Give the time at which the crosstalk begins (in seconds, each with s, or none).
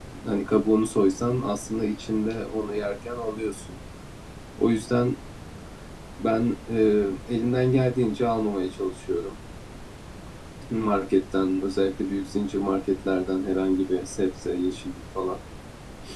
none